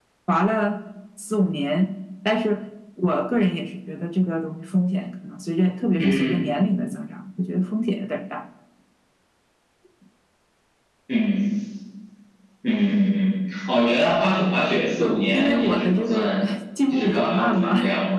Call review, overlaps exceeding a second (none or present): present